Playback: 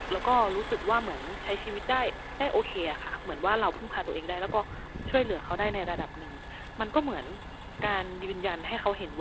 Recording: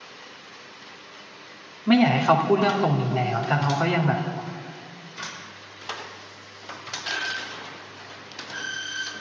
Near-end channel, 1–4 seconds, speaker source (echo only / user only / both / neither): user only